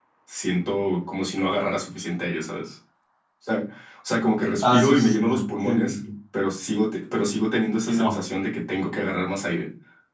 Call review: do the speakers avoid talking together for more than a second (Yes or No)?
No